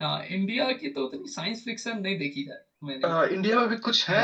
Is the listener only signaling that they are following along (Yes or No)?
No